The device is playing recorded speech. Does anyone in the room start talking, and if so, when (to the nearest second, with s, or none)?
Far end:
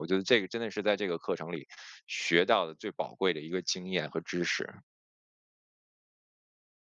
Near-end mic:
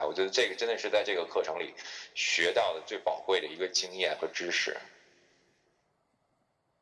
none